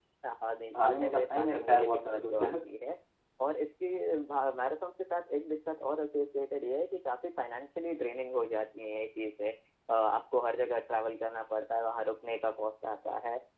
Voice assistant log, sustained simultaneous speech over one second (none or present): present